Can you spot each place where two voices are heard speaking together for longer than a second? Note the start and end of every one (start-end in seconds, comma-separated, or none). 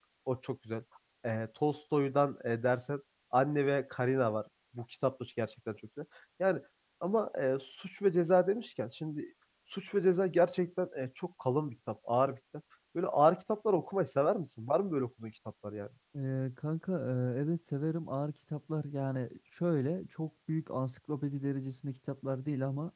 none